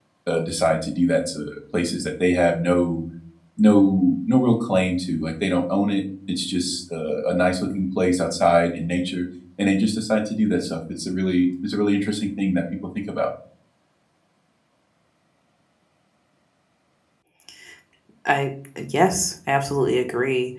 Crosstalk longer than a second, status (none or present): none